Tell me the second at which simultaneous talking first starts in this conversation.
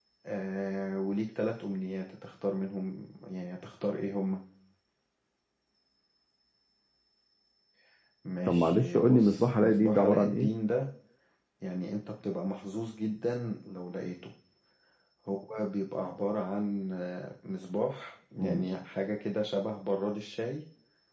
8 s

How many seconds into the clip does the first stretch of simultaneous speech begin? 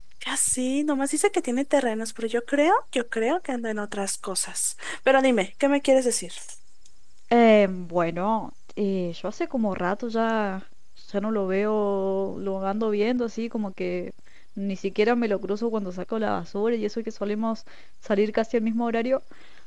none

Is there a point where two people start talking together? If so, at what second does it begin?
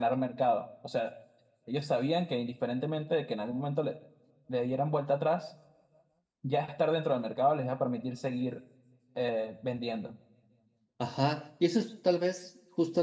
none

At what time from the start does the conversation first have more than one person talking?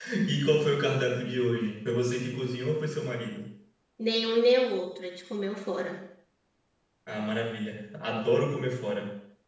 none

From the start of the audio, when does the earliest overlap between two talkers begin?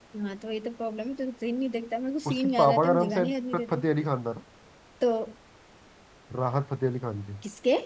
2 s

